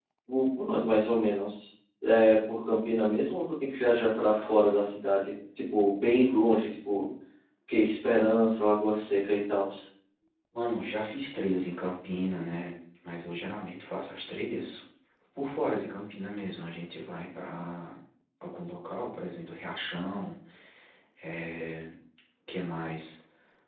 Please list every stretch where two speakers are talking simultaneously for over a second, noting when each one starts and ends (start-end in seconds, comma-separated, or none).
none